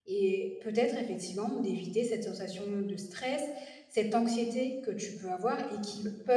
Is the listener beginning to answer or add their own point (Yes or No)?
No